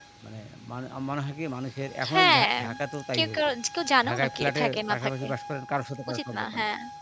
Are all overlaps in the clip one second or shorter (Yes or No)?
No